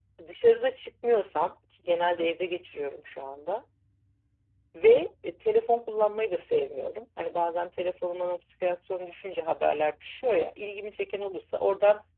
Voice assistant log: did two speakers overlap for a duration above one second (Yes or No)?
No